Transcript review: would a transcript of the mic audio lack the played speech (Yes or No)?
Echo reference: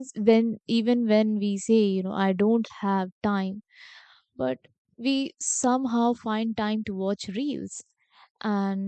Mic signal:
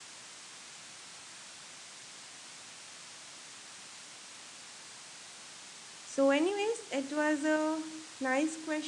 Yes